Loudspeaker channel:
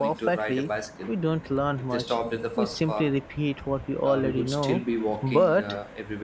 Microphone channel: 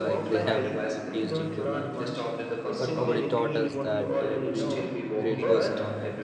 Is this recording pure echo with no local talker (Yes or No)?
No